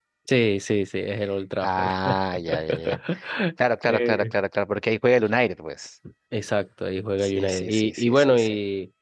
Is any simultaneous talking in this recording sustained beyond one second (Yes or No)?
Yes